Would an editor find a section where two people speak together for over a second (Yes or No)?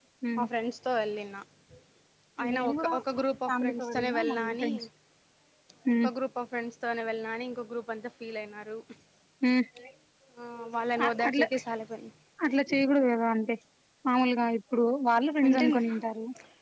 Yes